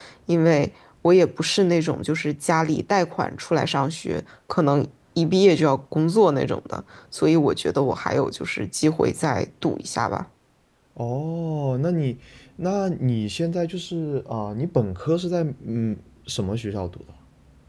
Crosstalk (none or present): none